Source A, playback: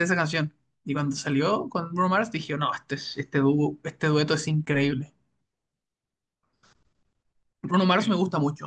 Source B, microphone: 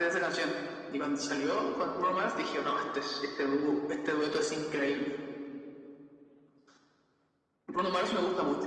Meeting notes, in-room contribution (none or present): none